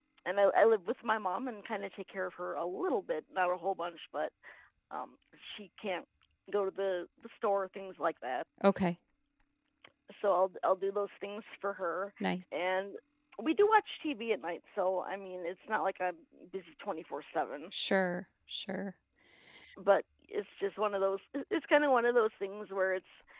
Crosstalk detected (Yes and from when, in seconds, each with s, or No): No